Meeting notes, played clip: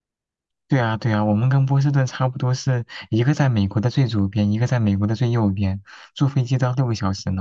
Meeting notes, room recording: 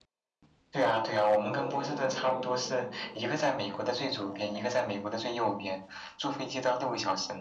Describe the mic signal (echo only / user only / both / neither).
both